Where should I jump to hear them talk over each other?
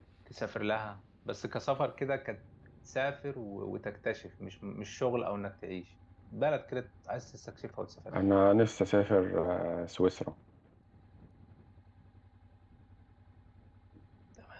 none

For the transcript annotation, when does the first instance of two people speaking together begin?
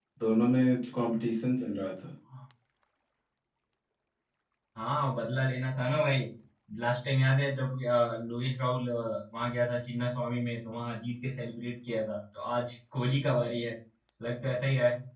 none

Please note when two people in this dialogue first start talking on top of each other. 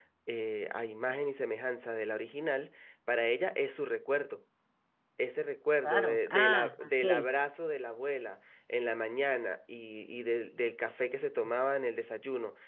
5.8 s

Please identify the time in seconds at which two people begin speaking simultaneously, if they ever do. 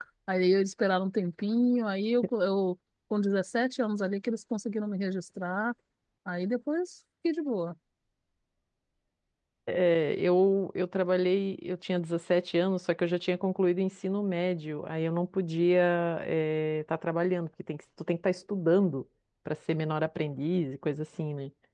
none

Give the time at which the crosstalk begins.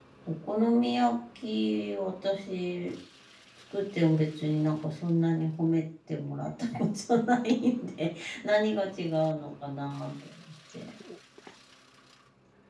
none

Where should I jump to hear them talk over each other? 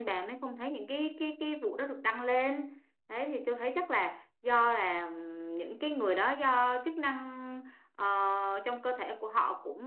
none

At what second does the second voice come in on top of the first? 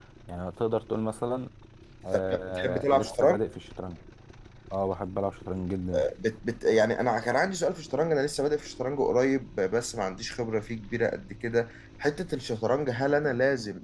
2.1 s

